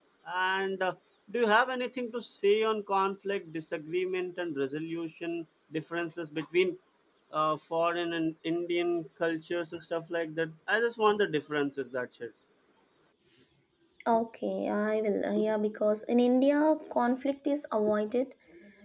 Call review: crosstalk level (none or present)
none